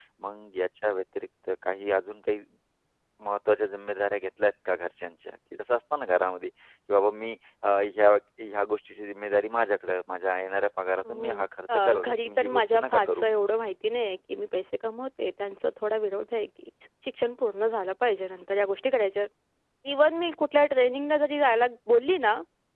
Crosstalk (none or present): present